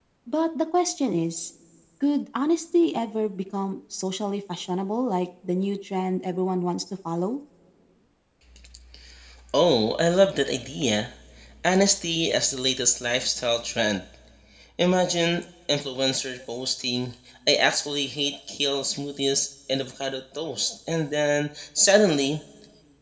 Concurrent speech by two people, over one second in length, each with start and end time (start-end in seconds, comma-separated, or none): none